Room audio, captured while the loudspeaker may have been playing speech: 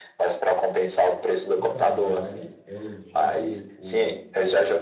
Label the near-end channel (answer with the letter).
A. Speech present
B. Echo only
A